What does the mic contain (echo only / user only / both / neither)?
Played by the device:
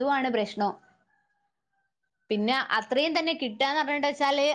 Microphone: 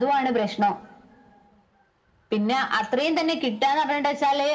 echo only